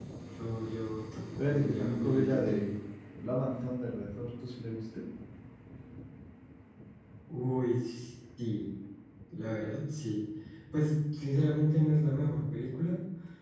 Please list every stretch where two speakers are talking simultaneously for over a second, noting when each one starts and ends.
1.4-2.6

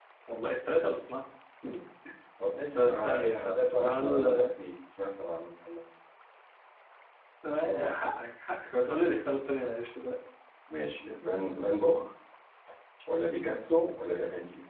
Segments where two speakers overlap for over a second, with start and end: 2.8-4.5

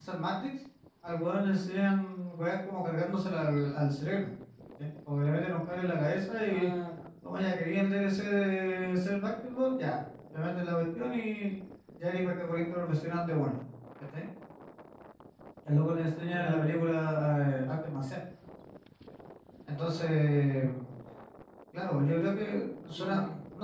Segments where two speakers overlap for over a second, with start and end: none

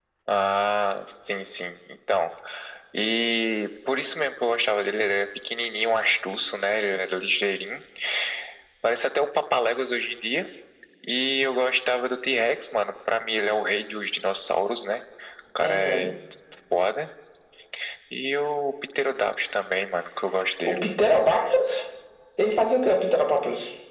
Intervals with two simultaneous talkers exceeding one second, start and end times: none

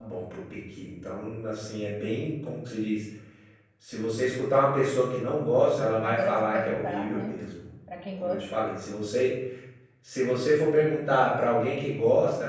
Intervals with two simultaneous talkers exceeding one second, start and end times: 5.6-7.3

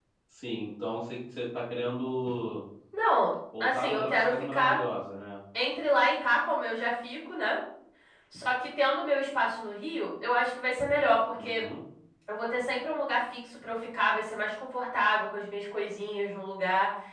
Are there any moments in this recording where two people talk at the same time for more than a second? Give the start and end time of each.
3.6-4.8

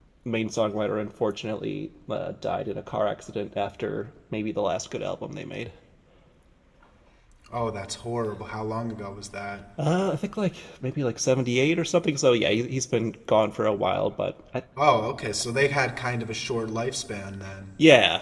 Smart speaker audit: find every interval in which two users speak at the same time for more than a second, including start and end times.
none

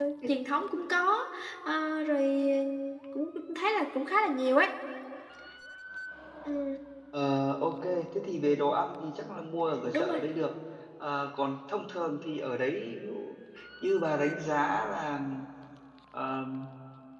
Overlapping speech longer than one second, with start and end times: none

